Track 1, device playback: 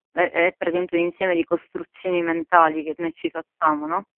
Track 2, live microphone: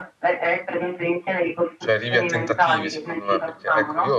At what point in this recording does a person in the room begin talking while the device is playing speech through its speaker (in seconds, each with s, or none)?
1.8 s